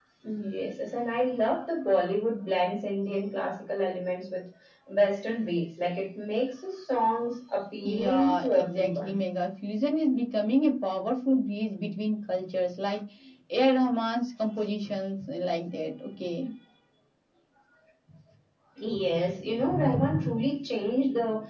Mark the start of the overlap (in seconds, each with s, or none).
7.8 s